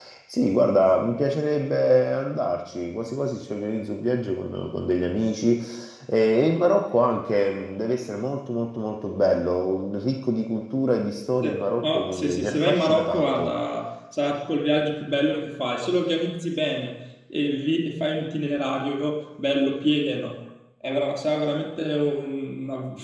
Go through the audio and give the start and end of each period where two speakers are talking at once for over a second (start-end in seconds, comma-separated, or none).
11.4-13.5